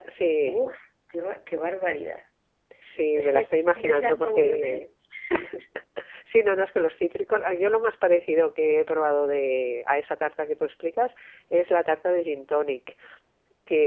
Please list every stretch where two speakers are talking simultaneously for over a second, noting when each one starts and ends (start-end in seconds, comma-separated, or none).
3.2-4.8